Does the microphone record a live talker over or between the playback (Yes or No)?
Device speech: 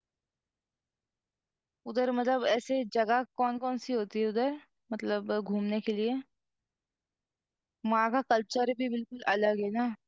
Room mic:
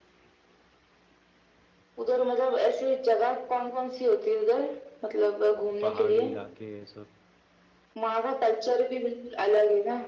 Yes